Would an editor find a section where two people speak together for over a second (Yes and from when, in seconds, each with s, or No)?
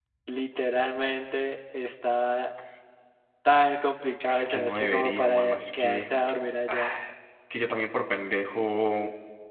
Yes, from 4.3 s